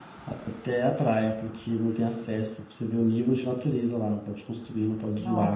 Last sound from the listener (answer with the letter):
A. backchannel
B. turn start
A